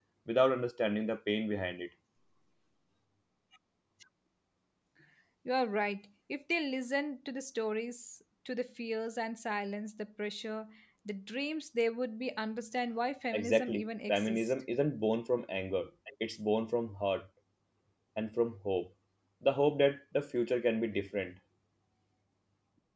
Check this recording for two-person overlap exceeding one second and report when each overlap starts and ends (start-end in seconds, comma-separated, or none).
13.3-14.5